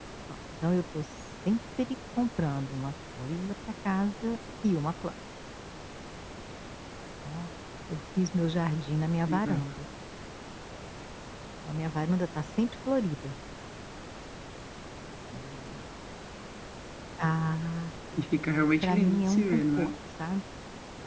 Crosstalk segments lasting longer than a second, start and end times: 18.3-19.9

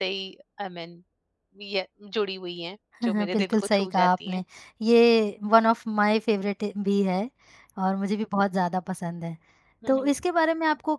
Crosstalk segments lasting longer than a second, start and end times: 3.0-4.4

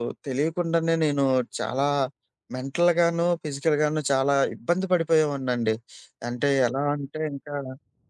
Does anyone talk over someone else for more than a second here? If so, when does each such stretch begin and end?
none

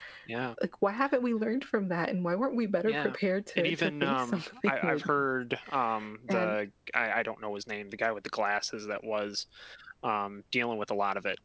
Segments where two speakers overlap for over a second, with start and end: 3.6-5.1

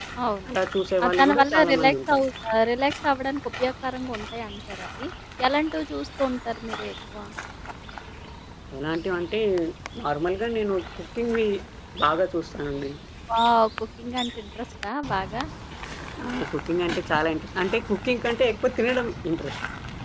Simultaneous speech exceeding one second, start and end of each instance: 1.0-2.2

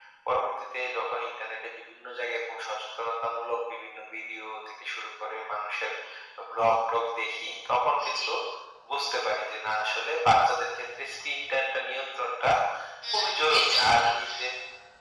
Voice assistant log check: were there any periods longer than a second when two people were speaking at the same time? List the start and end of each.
13.1-14.4

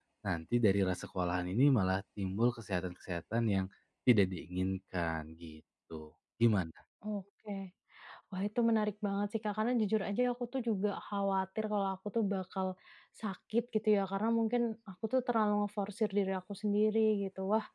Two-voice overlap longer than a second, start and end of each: none

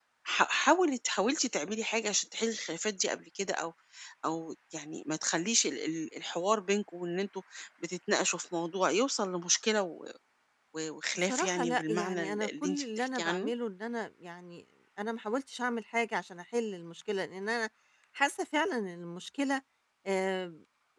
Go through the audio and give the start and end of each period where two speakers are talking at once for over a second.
11.2-13.5

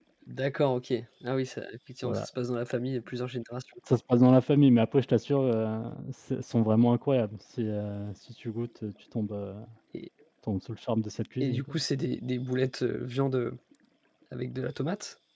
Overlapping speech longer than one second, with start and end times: none

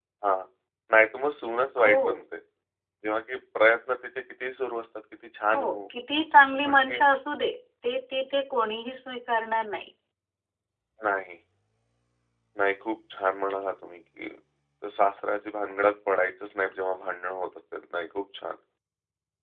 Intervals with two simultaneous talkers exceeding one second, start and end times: none

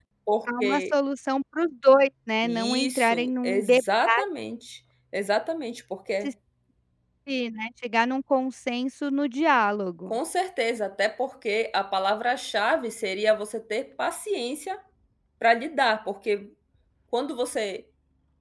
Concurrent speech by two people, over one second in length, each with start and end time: 2.4-3.8

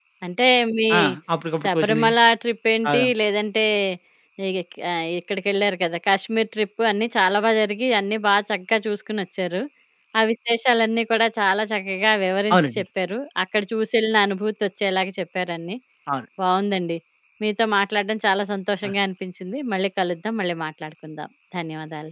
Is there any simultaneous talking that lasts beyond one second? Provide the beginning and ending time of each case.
none

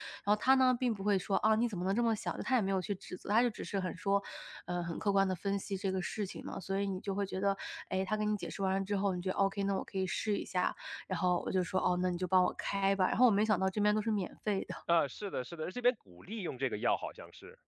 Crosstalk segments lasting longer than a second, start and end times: none

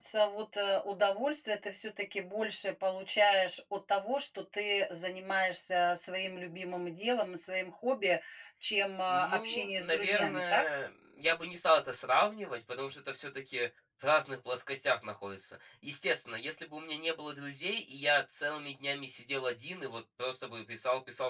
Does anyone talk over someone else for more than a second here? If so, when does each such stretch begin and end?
9.1-10.7

